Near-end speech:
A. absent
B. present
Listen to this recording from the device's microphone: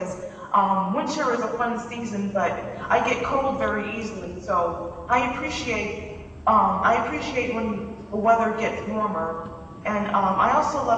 A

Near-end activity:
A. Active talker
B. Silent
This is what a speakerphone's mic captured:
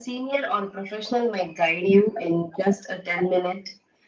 B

